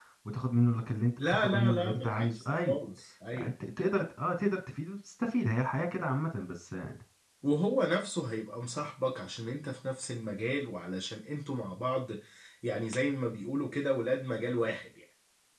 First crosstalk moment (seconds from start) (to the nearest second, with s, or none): 1 s